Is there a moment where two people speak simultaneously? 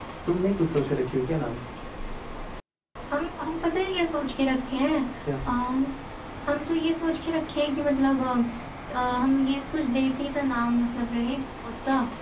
No

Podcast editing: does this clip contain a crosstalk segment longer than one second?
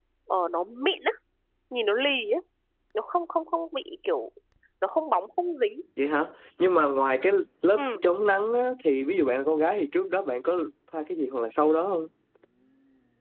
No

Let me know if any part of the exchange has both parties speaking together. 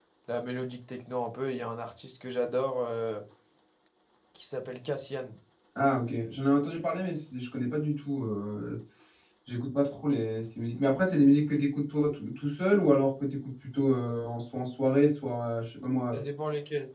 No

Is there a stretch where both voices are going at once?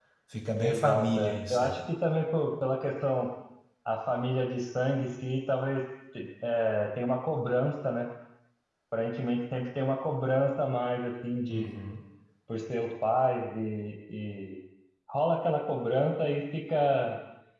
Yes, from 0.6 s

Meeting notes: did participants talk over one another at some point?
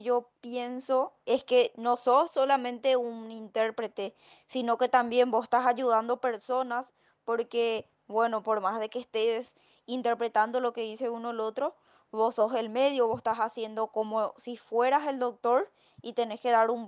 No

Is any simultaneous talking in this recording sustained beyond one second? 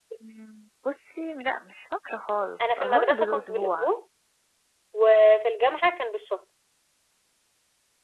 Yes, from 2.6 s

